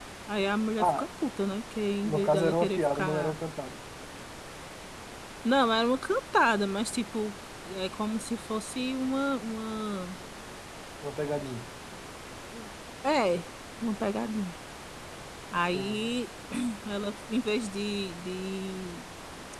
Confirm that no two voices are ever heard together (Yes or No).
No